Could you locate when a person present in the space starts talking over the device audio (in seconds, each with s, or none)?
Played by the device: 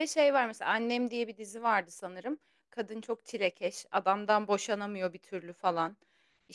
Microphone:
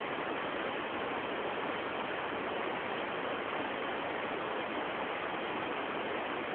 none